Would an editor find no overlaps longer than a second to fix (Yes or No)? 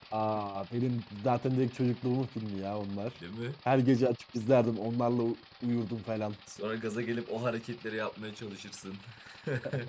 Yes